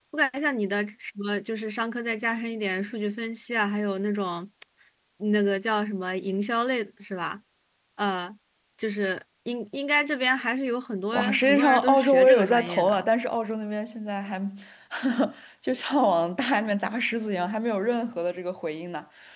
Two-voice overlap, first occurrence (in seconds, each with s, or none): 11.1 s